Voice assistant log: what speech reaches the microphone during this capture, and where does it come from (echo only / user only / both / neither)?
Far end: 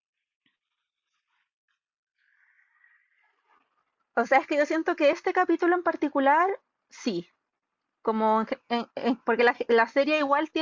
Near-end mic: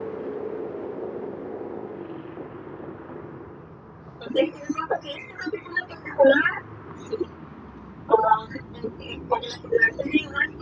echo only